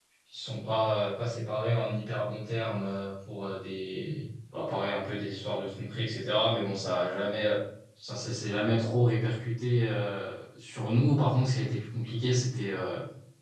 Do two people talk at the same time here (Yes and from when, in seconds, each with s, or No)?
No